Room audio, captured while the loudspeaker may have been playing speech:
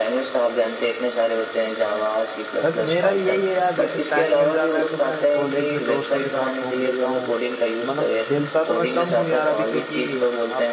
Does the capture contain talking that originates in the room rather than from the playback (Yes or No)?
Yes